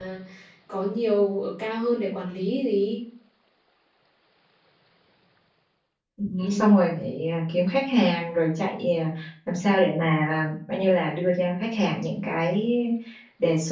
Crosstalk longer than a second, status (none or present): none